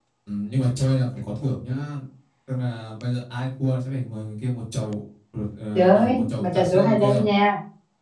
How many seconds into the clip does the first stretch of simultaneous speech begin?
5.7 s

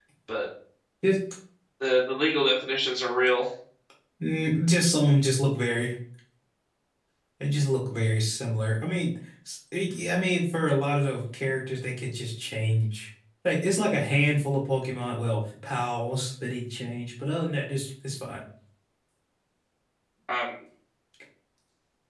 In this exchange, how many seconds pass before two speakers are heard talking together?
none

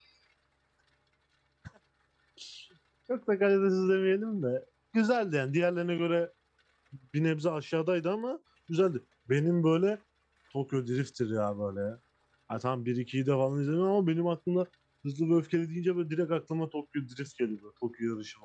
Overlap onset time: none

